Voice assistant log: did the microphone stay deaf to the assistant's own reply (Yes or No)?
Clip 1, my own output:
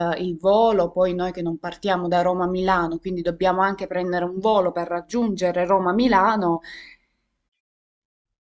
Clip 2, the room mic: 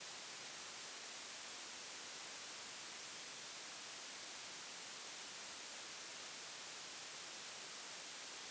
Yes